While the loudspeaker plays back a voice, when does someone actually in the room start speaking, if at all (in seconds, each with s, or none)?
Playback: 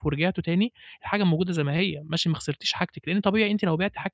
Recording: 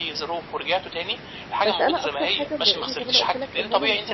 1.6 s